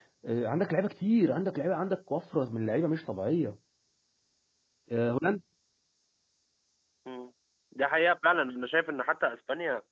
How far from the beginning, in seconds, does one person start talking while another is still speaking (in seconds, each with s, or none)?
none